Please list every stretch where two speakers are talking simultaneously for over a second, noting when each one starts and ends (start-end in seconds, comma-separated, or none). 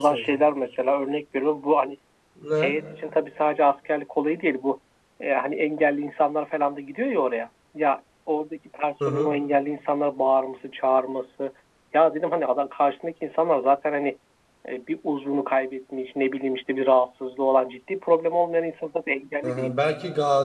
none